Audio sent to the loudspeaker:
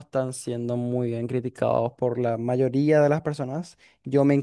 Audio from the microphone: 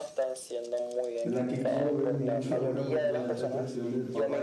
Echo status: present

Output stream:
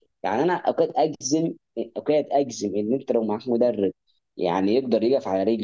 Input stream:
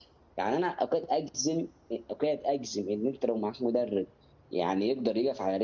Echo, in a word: present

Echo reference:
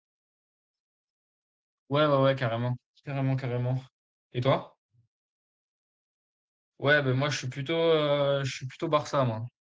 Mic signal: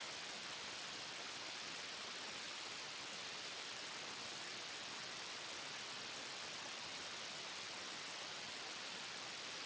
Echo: none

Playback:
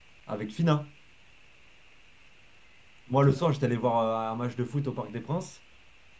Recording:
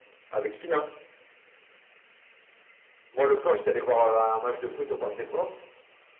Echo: present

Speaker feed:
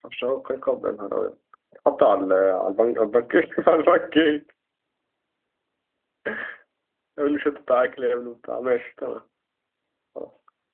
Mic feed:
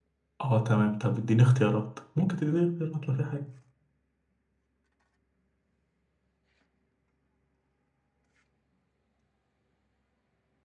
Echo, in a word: none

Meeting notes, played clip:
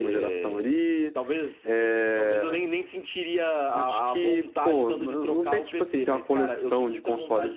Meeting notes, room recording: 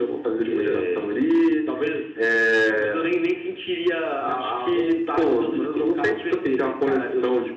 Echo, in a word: present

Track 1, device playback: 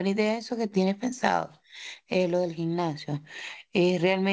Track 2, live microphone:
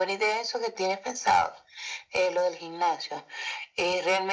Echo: present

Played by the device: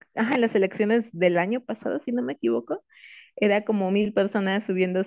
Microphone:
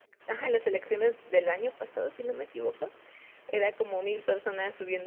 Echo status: present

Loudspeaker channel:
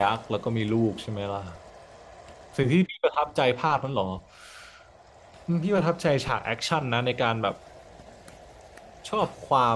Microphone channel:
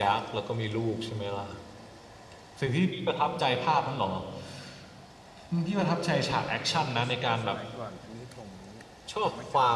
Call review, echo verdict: present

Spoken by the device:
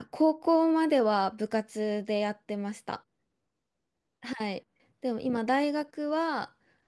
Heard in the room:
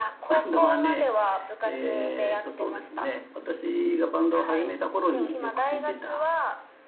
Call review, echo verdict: present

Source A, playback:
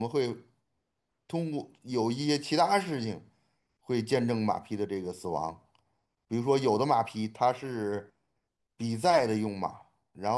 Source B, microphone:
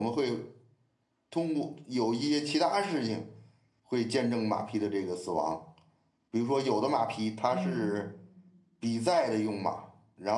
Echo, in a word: present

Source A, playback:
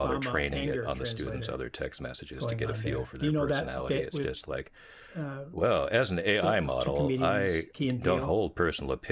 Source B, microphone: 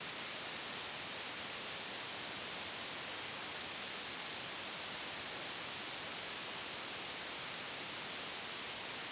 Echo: none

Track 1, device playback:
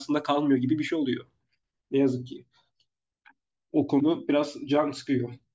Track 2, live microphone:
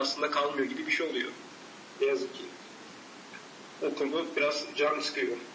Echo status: present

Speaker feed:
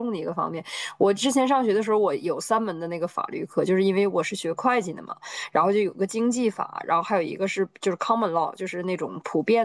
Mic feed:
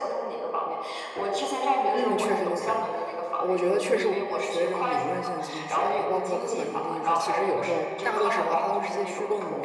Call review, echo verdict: present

